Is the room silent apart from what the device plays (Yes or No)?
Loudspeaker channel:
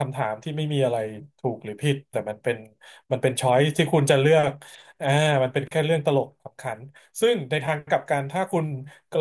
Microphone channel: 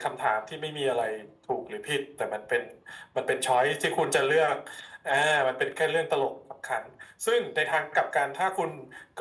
Yes